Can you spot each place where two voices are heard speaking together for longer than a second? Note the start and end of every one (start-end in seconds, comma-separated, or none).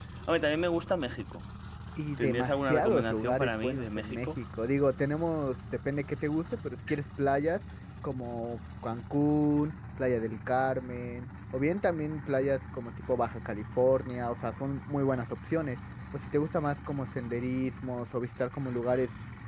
2.2-4.3